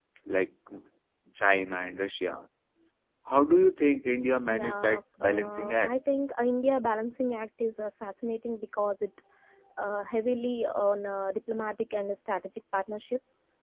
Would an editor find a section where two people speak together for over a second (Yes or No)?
Yes